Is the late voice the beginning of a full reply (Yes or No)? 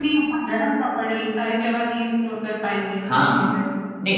Yes